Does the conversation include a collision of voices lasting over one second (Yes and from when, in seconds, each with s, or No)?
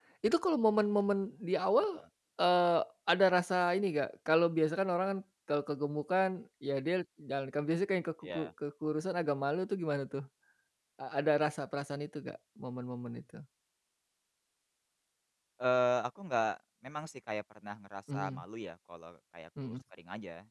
No